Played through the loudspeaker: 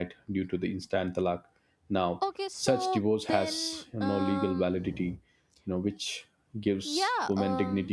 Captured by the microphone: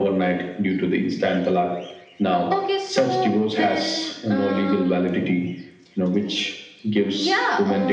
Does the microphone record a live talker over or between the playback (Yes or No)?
No